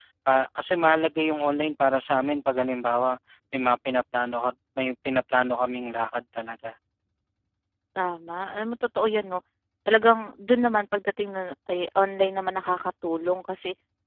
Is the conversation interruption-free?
Yes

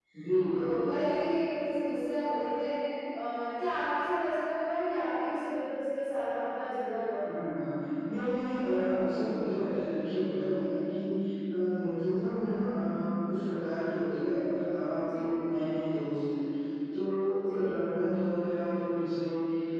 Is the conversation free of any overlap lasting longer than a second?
Yes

